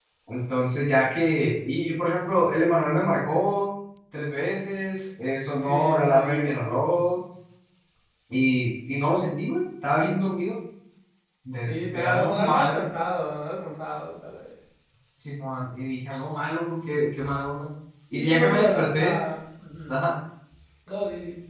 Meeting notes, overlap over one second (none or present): present